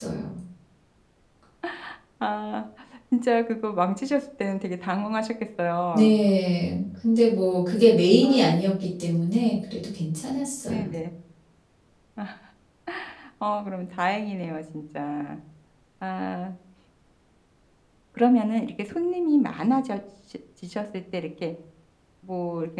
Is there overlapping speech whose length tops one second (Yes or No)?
No